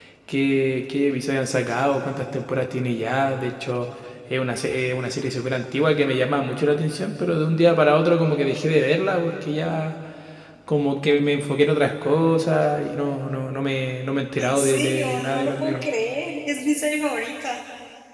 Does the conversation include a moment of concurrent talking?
Yes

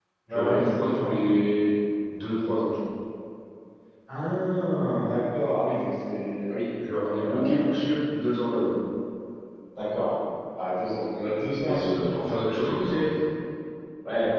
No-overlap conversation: No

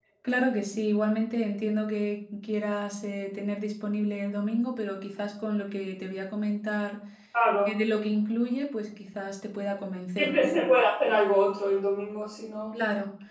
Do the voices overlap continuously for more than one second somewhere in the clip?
No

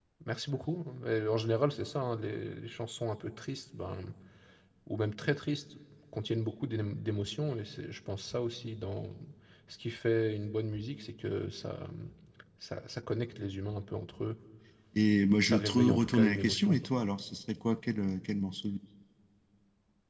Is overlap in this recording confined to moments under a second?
No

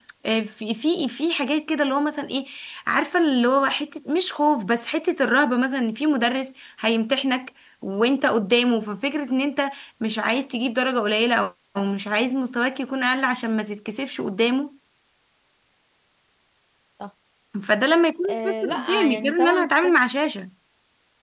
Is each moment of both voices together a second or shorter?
No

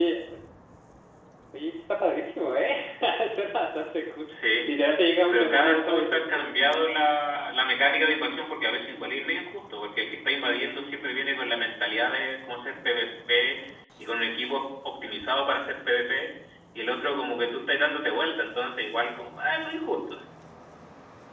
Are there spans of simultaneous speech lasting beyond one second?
Yes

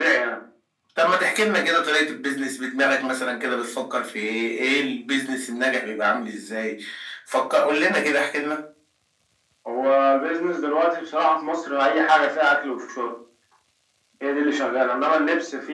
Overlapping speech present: No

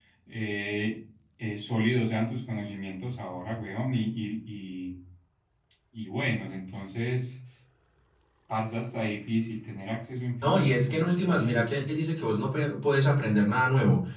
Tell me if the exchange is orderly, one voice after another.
No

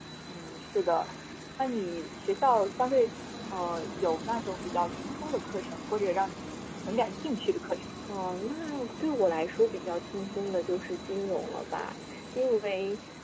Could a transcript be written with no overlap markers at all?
Yes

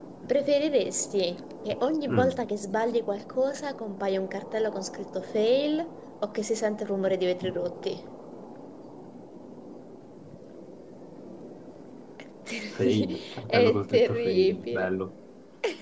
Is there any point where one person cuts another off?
Yes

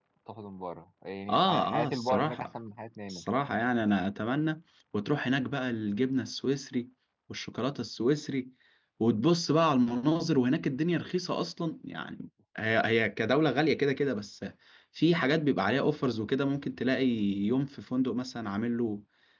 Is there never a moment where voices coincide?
No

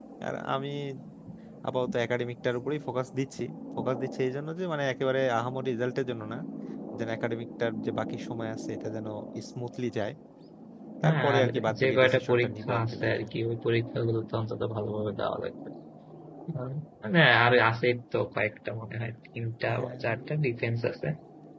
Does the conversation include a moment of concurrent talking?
Yes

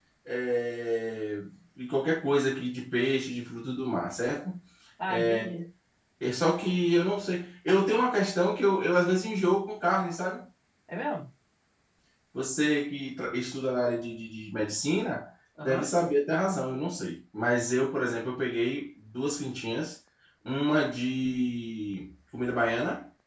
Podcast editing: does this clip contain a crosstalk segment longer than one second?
No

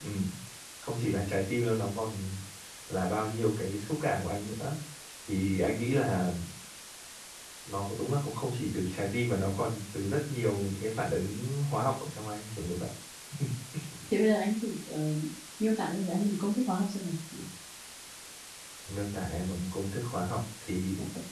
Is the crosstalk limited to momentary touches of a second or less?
Yes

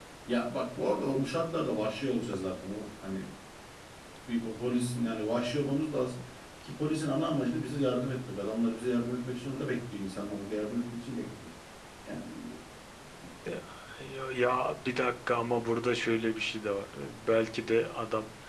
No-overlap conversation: Yes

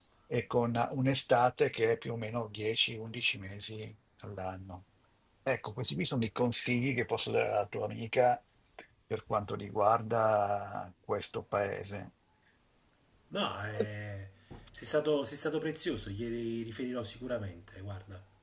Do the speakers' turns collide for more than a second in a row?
No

